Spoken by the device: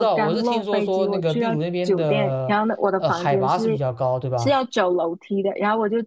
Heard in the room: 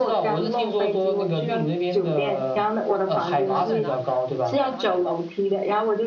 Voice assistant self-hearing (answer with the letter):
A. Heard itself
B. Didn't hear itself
A